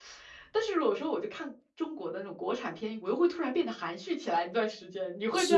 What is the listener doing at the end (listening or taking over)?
taking over